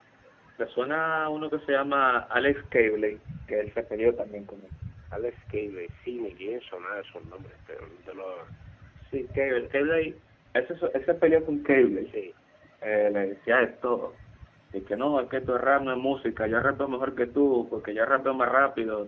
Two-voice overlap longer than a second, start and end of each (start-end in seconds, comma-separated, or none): none